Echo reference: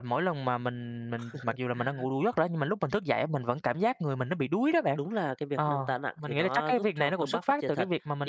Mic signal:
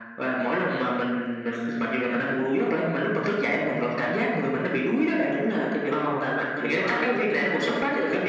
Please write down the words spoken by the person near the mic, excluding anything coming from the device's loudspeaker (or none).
none